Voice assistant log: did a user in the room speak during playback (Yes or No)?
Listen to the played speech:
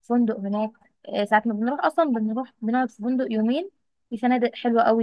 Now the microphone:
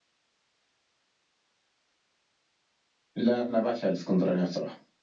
Yes